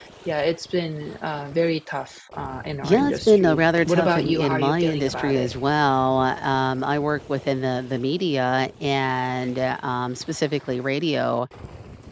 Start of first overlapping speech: 3 s

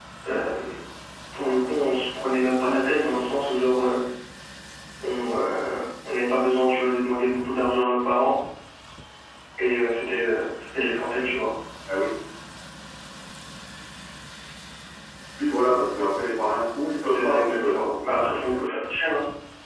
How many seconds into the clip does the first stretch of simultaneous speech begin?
17 s

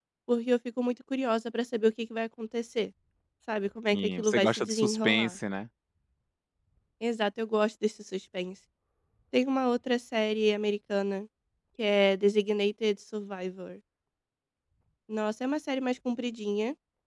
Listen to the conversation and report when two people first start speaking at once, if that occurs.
4 s

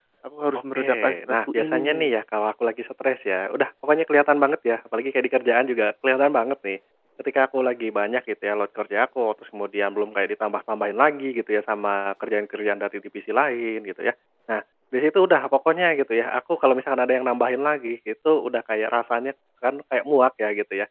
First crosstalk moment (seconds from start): 1 s

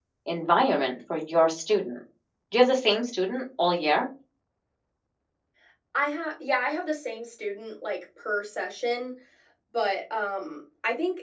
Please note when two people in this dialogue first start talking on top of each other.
none

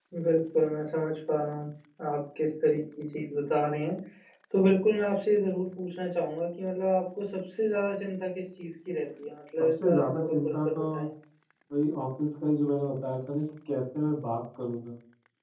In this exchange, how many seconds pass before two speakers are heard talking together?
10 s

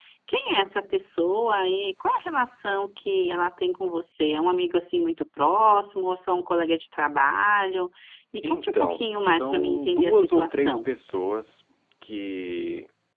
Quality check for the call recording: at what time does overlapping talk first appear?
8 s

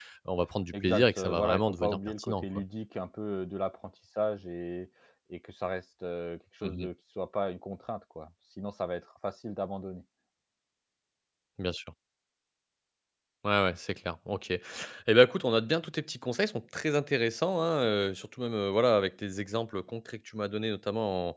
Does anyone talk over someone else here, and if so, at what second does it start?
1 s

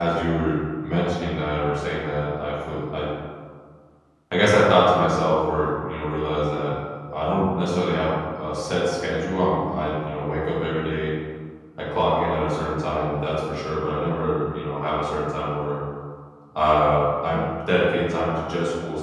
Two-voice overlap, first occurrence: none

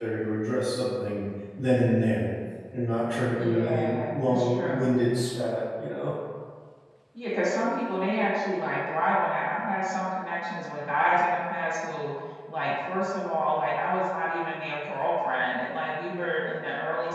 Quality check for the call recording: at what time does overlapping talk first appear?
3 s

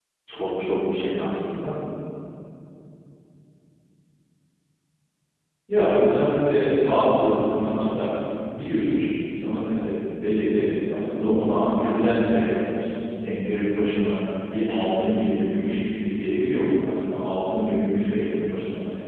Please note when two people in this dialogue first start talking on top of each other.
none

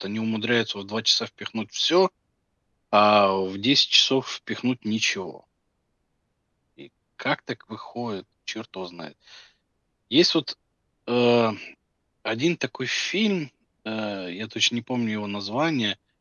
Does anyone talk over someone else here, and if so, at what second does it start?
none

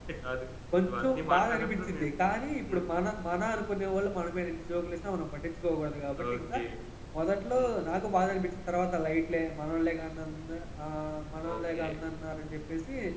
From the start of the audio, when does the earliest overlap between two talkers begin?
1 s

